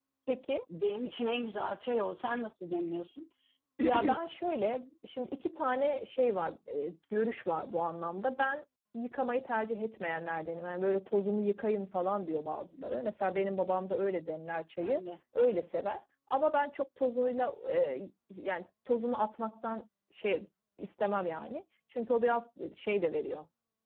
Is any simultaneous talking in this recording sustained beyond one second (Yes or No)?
No